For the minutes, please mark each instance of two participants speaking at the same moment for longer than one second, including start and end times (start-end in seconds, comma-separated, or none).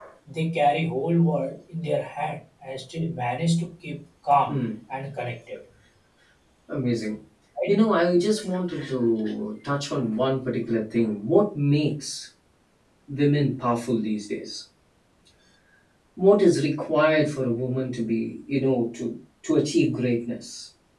none